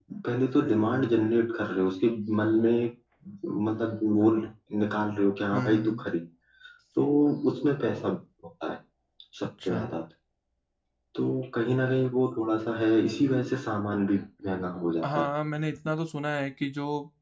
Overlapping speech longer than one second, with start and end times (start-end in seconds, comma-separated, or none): none